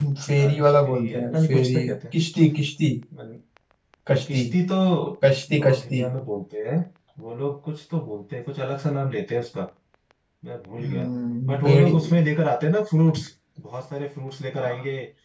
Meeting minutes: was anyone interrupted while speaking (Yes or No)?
Yes